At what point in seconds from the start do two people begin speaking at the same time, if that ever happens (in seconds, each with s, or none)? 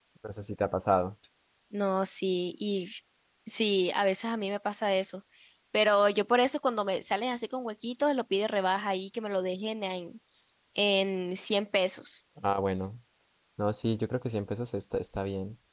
none